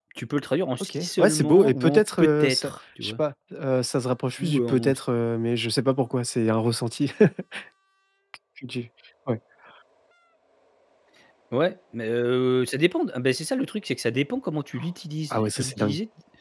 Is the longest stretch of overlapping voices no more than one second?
No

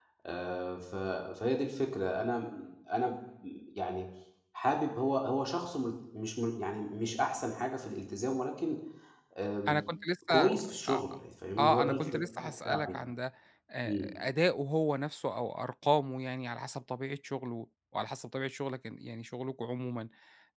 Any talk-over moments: Yes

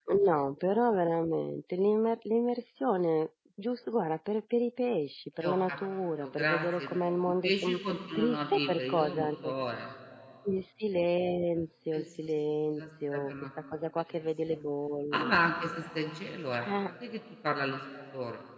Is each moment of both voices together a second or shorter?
No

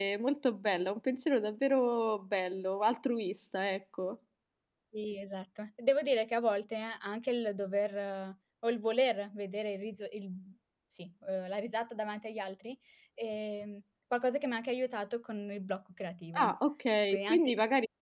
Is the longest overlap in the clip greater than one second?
No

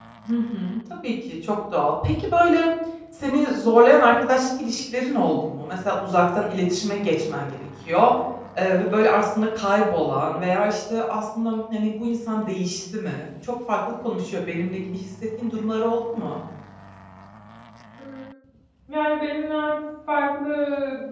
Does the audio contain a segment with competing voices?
No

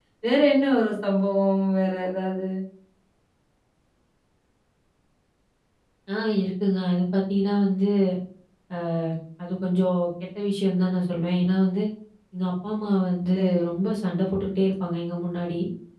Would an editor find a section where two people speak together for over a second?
No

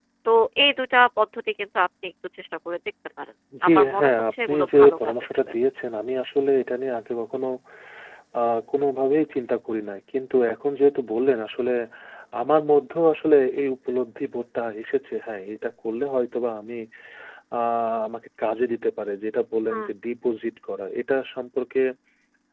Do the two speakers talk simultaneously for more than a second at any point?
Yes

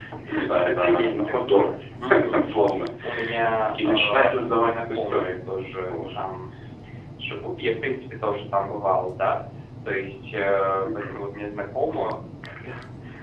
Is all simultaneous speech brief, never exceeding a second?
No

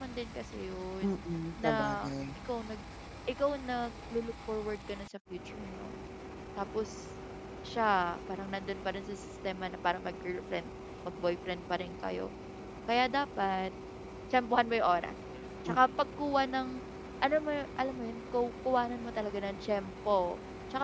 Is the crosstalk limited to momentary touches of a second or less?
Yes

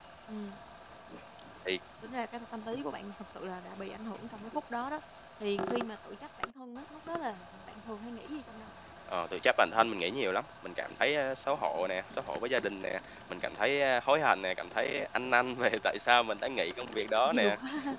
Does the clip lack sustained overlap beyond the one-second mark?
Yes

